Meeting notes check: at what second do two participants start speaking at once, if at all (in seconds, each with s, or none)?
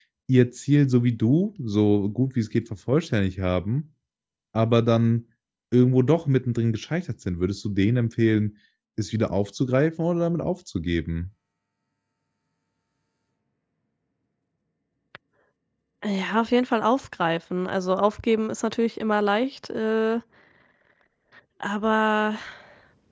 none